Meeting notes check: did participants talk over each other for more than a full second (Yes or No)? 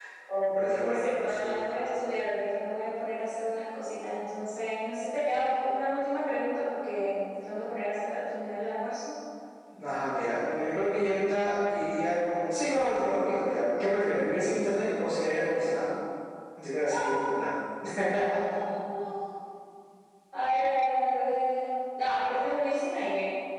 Yes